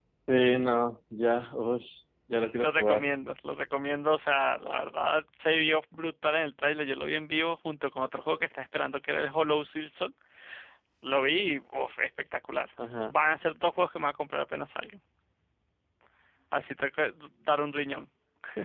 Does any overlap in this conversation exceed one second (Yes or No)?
No